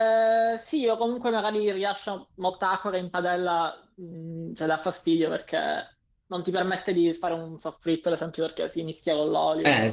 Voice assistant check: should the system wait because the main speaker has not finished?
No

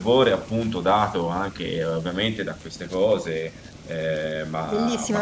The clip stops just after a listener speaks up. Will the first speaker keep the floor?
No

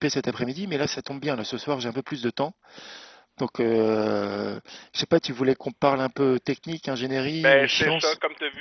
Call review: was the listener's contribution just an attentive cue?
No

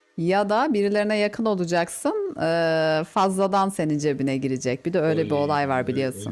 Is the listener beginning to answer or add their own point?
Yes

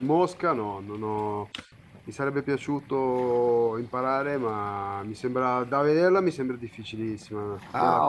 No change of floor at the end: No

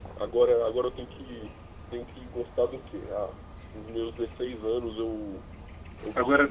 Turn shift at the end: No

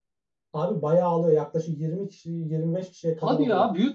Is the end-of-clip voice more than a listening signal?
Yes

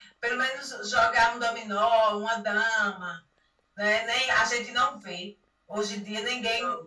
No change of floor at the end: Yes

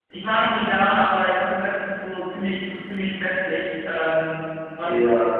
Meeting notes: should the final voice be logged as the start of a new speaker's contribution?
Yes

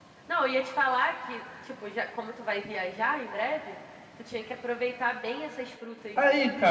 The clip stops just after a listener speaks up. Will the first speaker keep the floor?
No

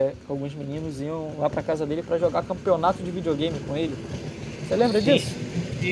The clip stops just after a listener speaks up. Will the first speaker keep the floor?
No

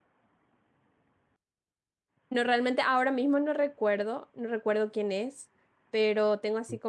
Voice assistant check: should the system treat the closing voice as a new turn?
No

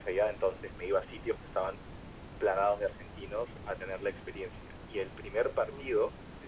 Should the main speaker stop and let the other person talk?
No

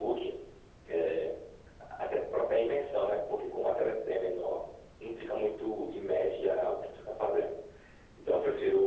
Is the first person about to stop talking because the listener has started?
No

